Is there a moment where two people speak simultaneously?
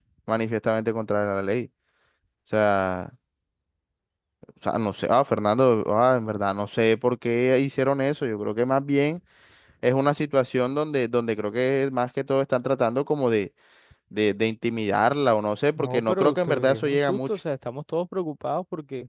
Yes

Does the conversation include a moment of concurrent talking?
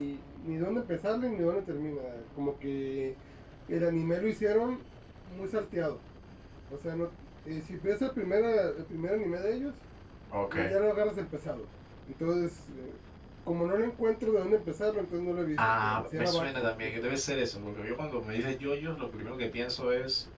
Yes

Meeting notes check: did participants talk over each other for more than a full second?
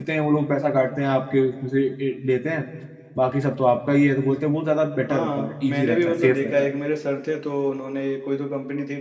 Yes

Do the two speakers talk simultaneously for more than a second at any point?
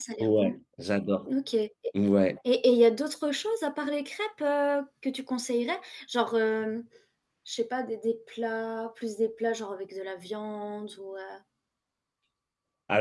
No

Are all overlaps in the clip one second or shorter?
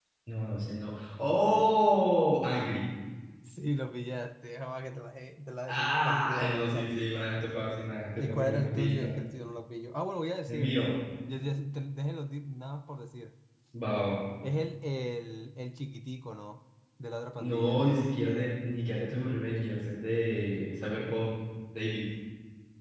No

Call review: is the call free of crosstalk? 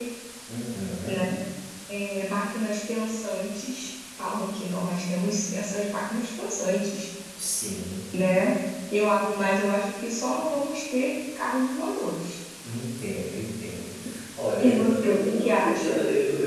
No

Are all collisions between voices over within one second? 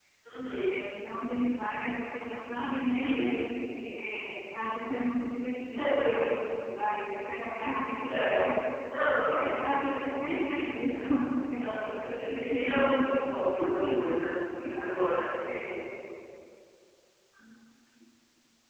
No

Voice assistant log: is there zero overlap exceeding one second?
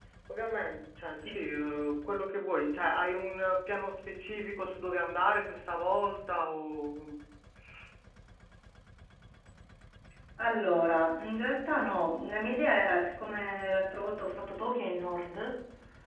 Yes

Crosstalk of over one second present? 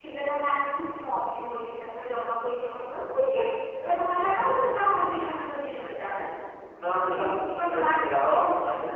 Yes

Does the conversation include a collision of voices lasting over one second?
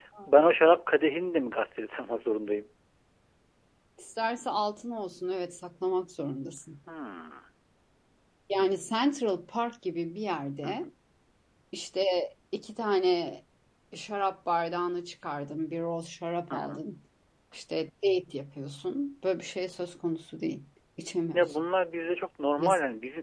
No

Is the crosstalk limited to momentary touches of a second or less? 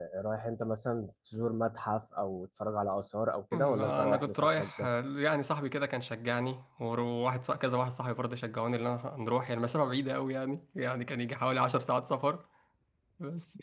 No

